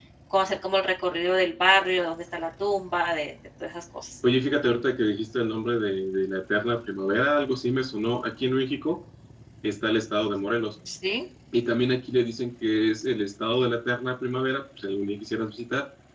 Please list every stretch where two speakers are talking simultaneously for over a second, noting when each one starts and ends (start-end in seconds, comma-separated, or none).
none